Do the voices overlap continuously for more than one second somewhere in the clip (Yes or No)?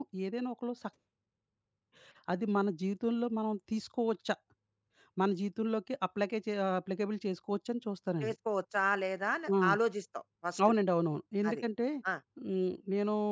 No